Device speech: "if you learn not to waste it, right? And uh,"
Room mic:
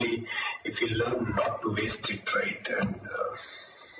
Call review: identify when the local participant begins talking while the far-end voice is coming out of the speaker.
none

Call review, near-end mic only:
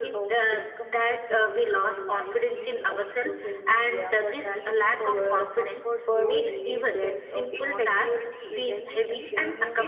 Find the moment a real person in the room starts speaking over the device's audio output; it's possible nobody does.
3 s

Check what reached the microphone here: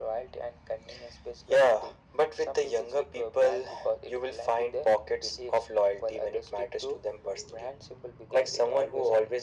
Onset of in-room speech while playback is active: none

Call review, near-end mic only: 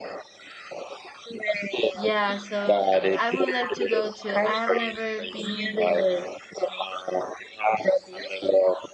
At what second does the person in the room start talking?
2 s

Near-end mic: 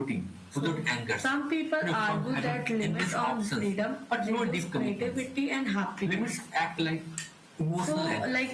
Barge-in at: none

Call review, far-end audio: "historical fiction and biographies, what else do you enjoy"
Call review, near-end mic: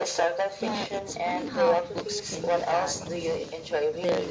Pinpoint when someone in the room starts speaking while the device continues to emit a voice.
1 s

